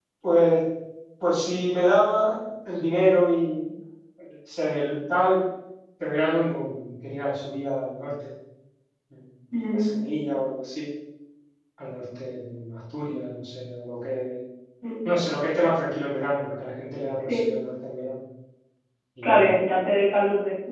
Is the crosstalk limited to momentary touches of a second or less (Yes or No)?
Yes